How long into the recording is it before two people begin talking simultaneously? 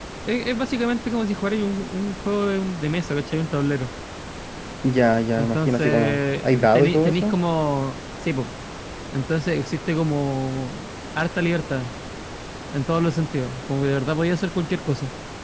5.4 s

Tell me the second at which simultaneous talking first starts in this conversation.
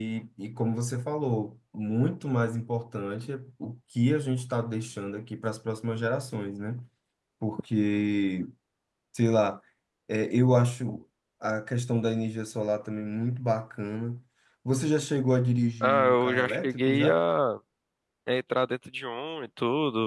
15.8 s

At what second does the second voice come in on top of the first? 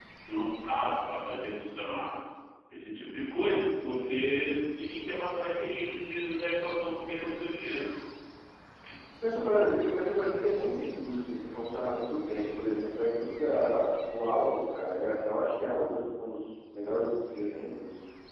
none

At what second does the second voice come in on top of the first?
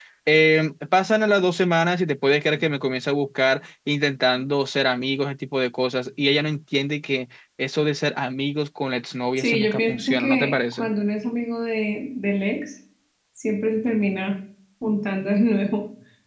9.3 s

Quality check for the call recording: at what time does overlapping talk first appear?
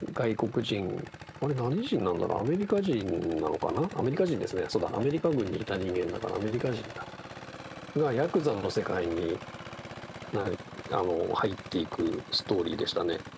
none

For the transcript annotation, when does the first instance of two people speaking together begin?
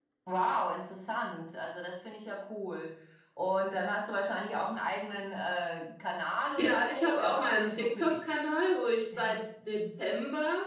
6.5 s

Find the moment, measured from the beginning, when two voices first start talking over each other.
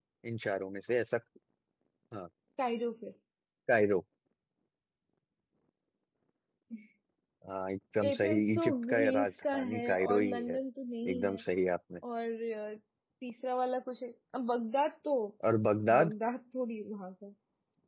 8.1 s

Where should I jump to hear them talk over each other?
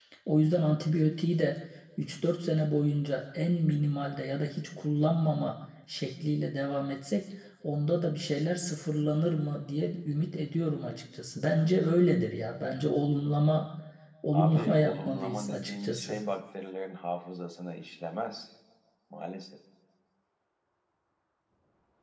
14.3 s

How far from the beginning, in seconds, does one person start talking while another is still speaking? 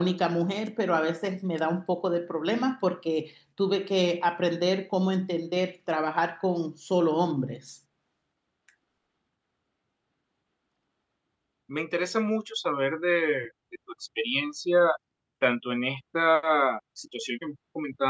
none

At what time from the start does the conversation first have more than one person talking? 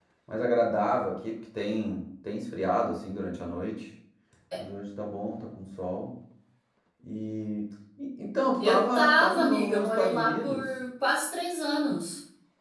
8.6 s

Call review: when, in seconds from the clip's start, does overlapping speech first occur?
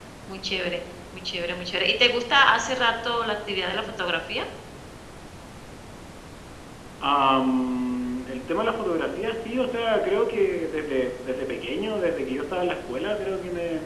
none

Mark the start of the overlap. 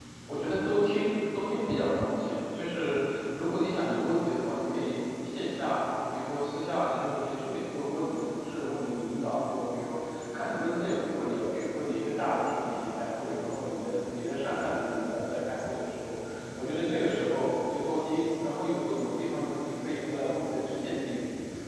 none

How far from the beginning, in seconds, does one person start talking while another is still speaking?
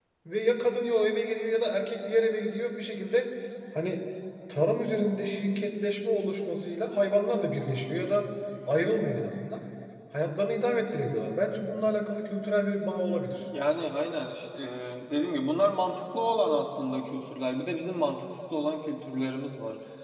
none

